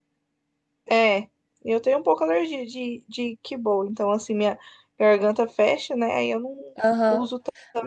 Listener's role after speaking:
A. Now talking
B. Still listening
A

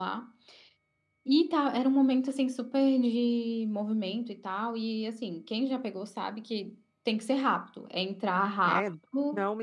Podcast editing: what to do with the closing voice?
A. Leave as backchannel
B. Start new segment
B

